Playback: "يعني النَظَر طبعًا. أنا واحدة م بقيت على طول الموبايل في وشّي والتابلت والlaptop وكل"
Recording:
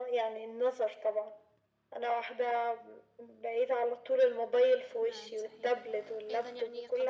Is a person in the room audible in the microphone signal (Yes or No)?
Yes